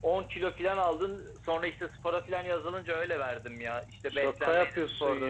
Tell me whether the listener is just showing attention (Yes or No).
No